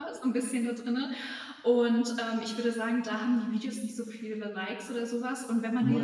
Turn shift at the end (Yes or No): No